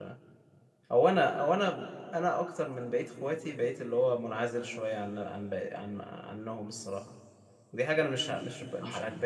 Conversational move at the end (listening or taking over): listening